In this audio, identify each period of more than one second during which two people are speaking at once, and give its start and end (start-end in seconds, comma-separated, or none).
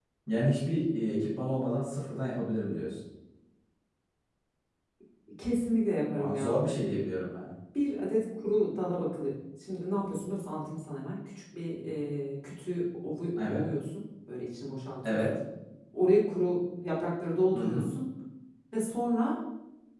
none